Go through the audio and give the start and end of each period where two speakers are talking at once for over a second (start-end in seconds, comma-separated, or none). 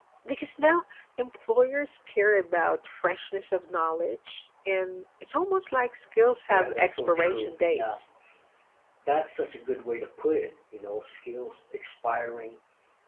6.5-8.0